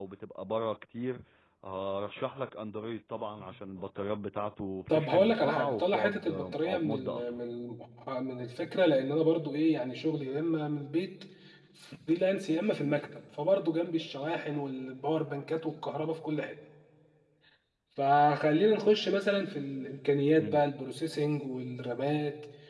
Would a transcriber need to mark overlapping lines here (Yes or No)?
Yes